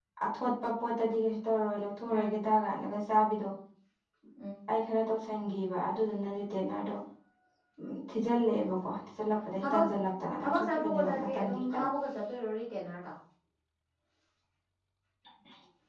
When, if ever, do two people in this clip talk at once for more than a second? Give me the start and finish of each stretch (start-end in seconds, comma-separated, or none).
10.4-11.9